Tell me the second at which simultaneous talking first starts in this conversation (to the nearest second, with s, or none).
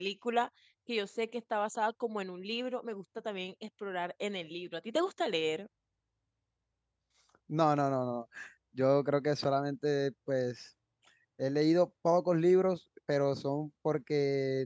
none